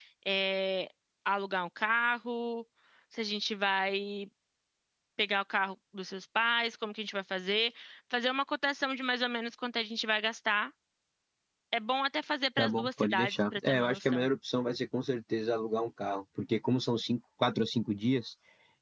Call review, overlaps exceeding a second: present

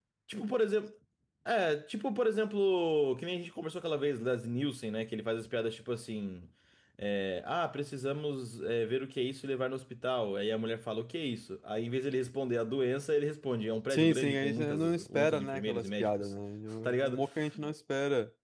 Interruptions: present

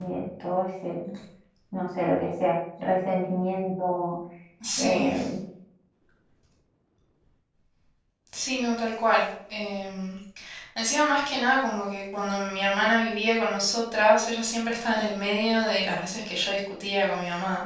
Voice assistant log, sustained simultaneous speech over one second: none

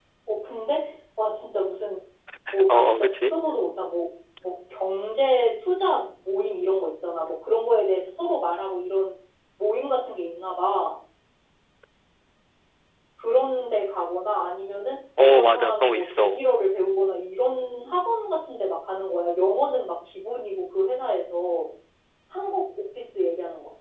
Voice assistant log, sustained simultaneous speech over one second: present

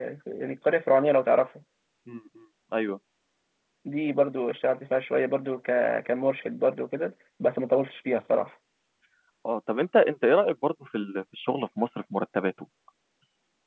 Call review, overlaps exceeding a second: none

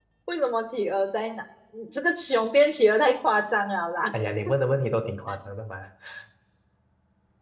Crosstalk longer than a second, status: none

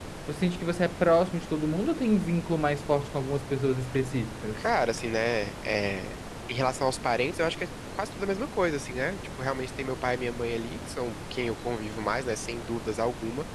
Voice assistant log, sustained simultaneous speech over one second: none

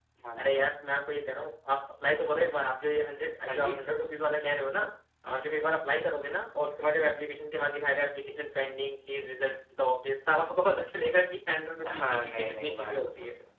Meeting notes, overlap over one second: present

